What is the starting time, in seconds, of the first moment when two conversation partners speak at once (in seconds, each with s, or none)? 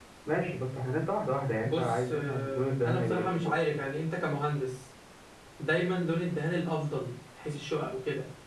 1.6 s